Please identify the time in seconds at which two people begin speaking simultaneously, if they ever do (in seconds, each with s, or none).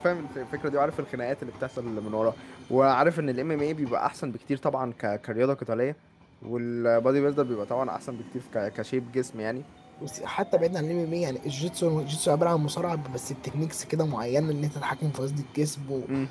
none